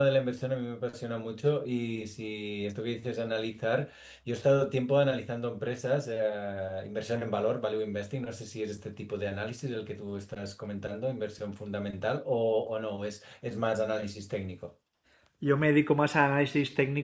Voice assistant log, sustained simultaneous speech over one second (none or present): none